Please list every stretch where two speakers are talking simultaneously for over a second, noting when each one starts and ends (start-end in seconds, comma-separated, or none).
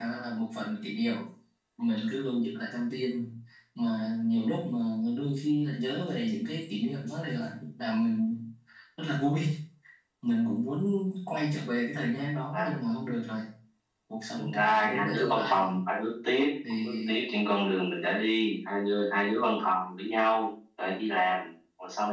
14.4-15.7